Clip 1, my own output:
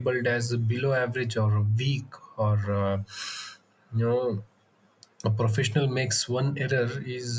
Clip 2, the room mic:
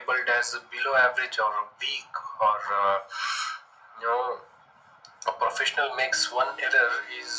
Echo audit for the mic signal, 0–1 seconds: echo only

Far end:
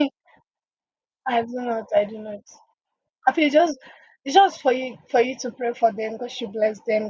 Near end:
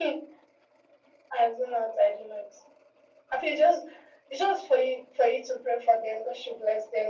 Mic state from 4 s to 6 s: echo only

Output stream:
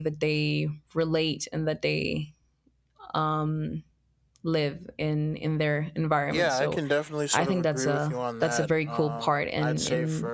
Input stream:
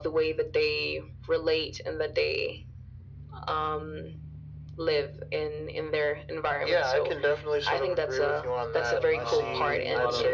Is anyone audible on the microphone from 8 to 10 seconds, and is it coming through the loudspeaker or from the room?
both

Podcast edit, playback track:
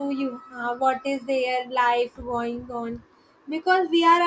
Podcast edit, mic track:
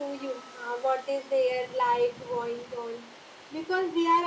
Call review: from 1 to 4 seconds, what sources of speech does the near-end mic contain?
echo only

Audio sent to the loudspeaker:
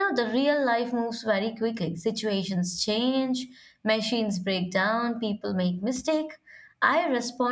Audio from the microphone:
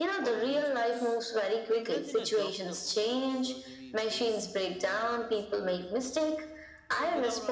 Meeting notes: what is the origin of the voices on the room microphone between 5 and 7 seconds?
both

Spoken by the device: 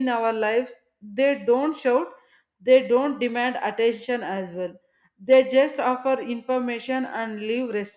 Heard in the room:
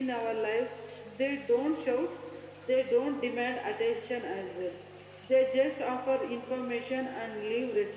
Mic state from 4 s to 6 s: echo only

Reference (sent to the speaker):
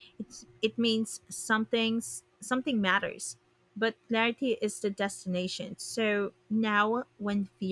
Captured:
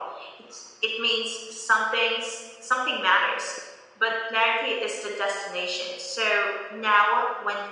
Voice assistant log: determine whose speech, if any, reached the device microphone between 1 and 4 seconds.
echo only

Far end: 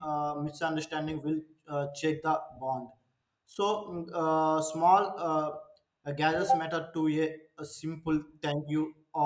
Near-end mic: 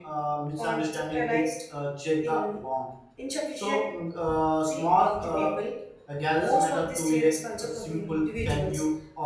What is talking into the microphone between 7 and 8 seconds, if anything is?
both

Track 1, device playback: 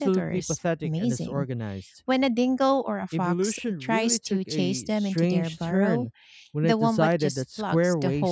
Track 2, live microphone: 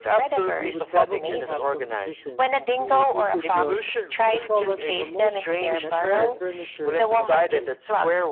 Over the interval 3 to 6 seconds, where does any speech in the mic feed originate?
both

